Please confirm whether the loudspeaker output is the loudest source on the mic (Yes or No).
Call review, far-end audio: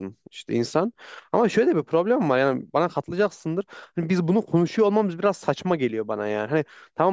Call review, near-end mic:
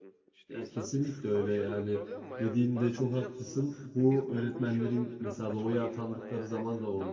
No